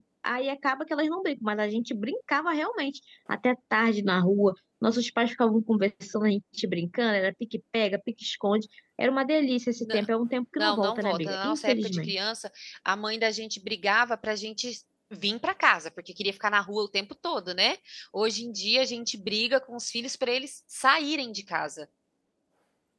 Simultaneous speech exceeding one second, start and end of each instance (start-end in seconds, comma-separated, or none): 10.5-12.3